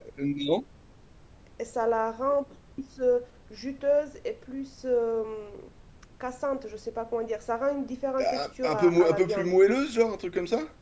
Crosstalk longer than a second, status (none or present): present